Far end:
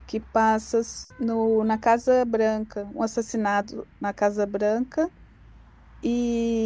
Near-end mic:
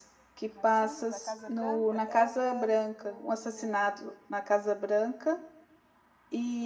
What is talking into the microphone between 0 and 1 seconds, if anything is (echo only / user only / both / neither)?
both